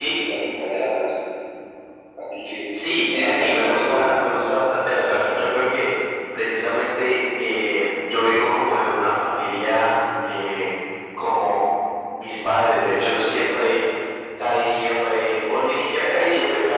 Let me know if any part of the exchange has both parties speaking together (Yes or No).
Yes